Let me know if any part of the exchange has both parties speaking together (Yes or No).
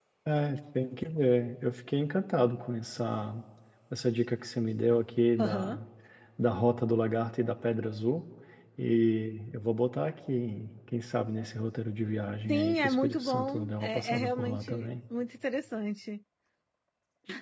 Yes